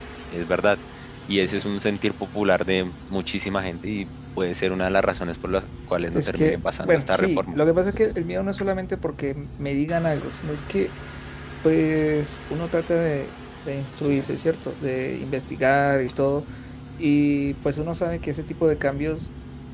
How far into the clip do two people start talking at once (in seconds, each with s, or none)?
6.1 s